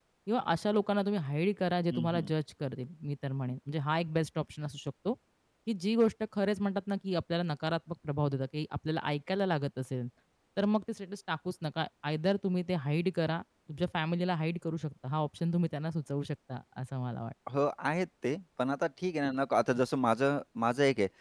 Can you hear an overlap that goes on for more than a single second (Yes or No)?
No